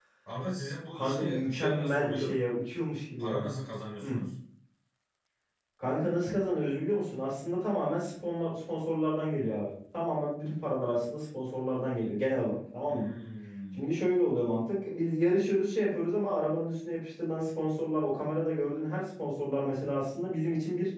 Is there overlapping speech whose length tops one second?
Yes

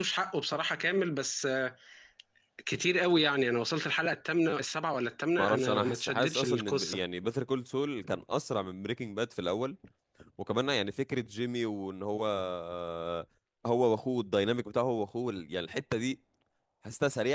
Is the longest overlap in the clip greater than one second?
Yes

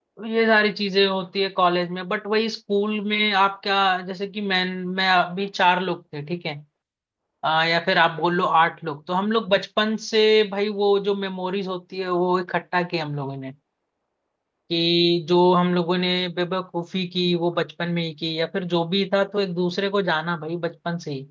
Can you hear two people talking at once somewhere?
No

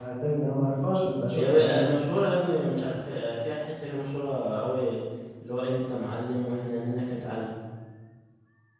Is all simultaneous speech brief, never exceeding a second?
Yes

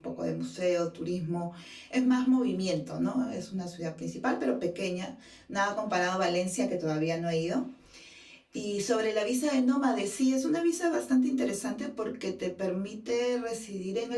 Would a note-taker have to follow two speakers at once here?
No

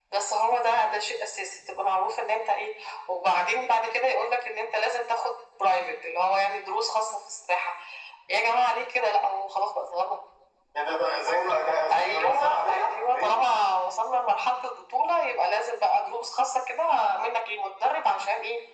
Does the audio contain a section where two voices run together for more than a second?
Yes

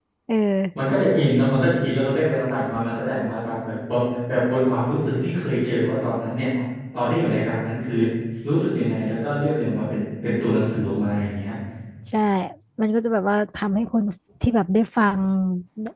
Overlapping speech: No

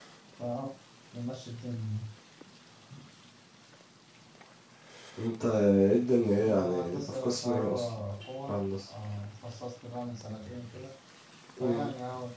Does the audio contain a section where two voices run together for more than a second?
Yes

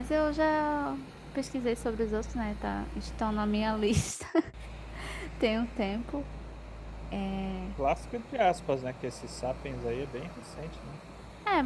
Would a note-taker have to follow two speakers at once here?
No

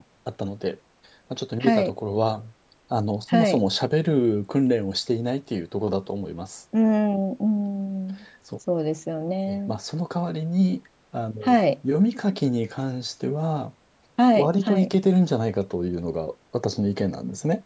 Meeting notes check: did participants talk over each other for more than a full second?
No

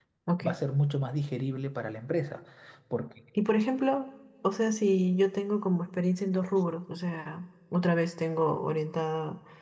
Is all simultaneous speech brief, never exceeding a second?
Yes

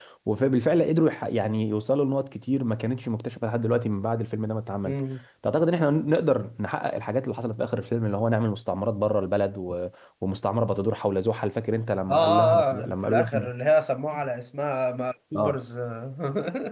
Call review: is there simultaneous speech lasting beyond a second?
Yes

